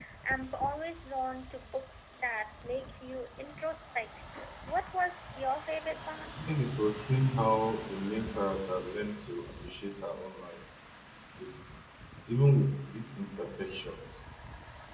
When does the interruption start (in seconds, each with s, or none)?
none